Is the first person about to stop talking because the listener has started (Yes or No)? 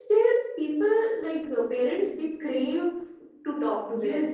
Yes